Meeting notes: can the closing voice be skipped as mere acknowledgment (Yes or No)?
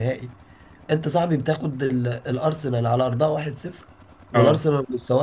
Yes